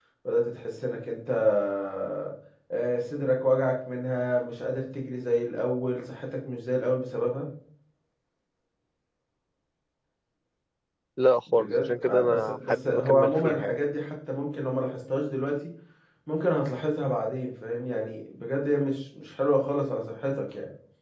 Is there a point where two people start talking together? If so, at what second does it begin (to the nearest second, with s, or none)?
12 s